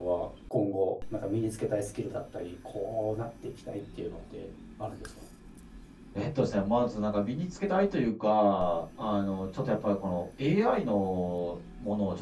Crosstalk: none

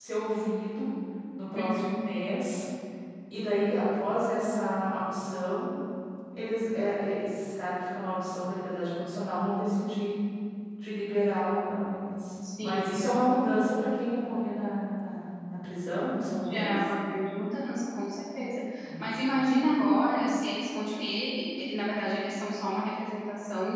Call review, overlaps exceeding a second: none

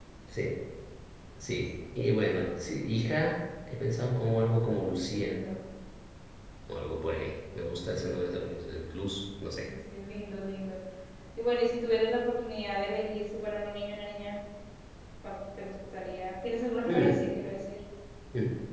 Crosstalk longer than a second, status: none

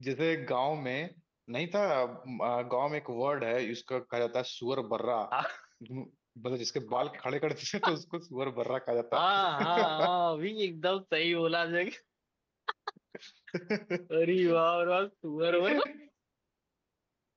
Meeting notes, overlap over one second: none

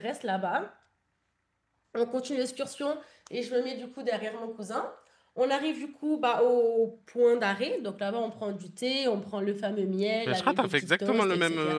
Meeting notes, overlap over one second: present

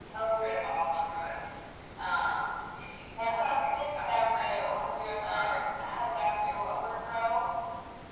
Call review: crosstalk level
present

